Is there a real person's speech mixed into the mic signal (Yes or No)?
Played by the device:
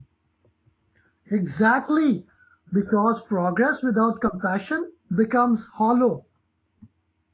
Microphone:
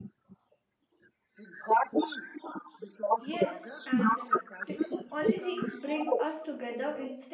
Yes